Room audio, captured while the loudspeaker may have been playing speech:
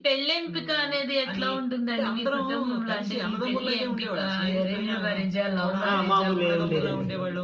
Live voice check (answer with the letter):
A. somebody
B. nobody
A